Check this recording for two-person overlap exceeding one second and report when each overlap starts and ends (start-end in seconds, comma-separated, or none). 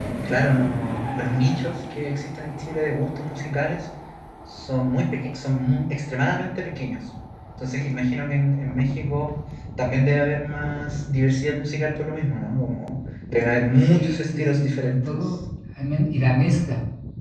13.8-15.2